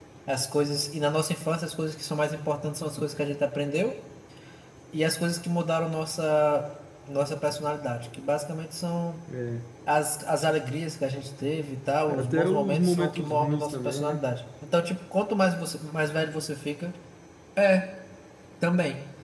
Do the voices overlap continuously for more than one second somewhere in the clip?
Yes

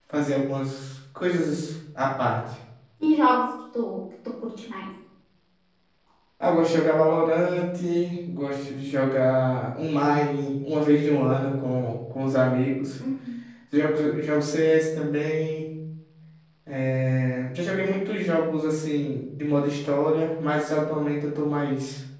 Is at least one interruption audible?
No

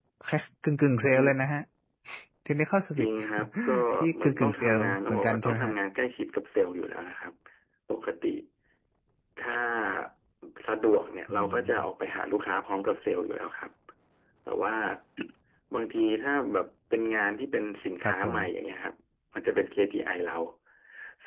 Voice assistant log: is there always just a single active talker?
No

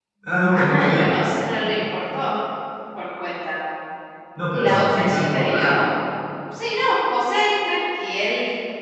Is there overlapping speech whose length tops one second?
Yes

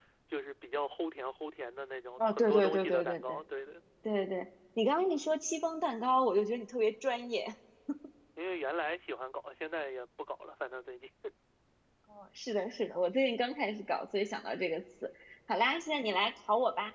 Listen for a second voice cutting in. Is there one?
Yes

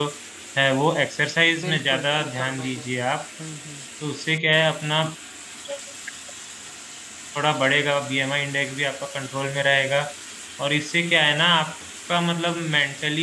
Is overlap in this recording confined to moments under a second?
No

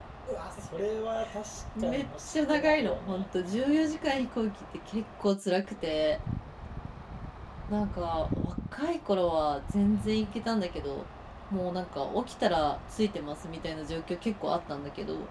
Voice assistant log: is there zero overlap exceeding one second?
No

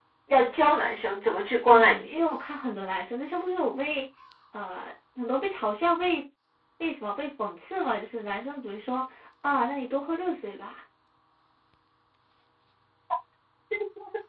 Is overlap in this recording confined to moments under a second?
Yes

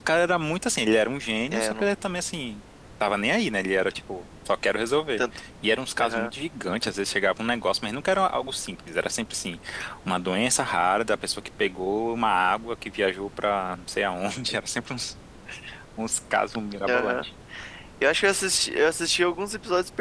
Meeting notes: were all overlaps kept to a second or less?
Yes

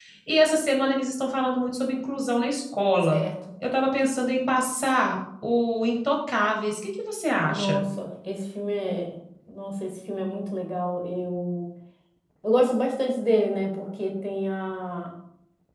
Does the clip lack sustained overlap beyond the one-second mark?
Yes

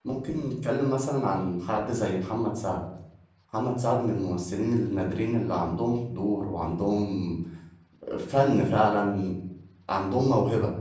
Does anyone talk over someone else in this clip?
No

